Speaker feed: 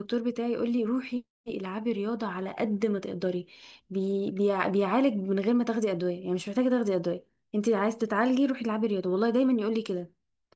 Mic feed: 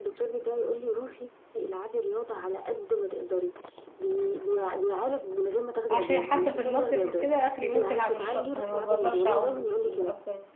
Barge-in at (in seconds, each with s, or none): 5.9 s